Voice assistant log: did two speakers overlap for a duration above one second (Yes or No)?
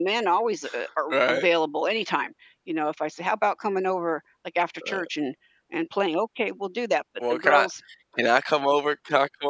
No